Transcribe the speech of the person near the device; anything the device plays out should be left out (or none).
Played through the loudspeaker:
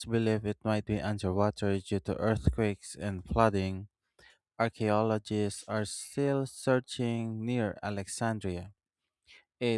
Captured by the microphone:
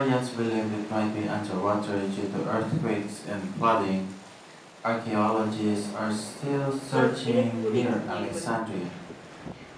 but it didn't fully explain what happened.